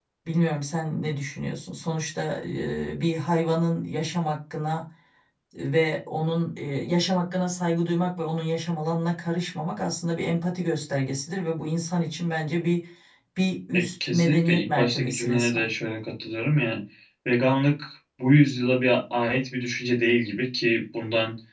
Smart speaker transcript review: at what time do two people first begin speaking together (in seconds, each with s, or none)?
13.8 s